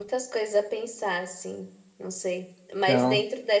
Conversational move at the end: listening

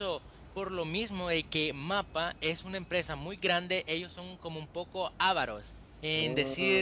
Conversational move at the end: listening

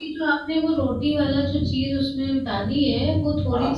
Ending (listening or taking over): listening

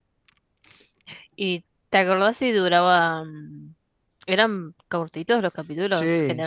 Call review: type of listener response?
taking over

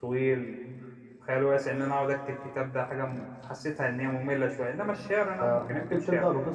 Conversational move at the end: taking over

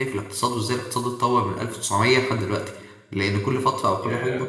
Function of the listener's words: listening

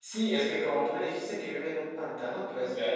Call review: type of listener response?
listening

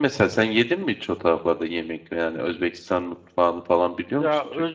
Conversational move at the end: taking over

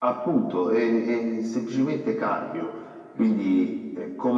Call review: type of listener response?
listening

